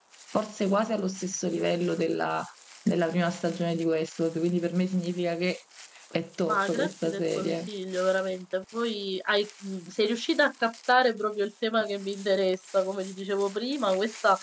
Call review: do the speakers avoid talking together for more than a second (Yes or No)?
No